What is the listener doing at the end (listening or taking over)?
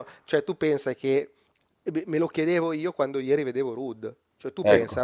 listening